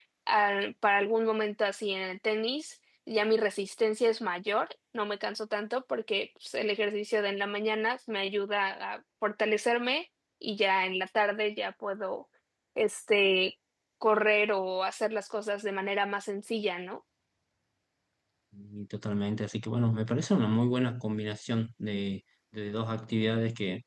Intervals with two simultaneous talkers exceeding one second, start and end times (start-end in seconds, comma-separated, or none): none